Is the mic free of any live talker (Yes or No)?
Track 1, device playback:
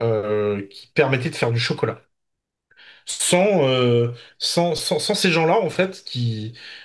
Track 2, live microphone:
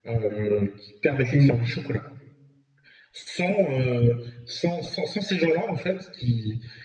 No